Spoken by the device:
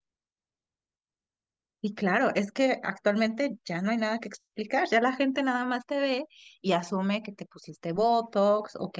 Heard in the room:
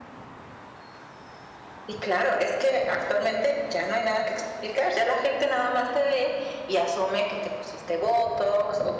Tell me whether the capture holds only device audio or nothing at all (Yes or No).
Yes